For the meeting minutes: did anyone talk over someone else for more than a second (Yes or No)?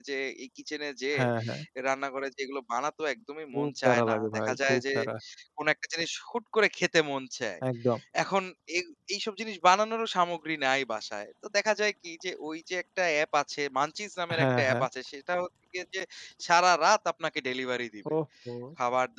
Yes